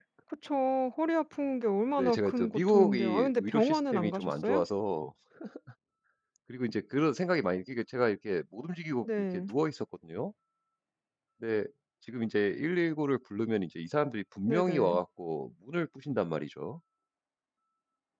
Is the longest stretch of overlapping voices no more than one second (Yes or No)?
No